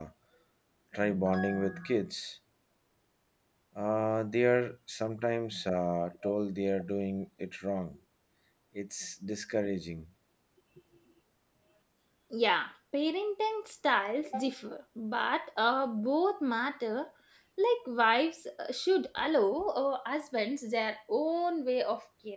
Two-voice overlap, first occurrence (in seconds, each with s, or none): none